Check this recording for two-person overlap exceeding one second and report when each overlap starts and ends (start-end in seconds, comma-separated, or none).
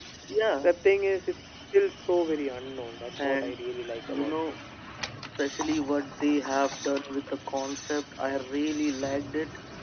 none